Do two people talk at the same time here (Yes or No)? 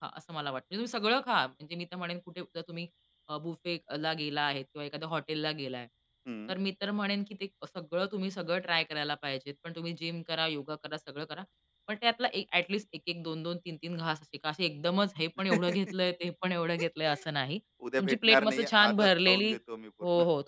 Yes